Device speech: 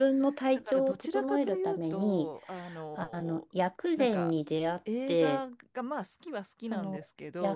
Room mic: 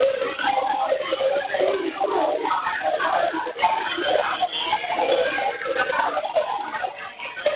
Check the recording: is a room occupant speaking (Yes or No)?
No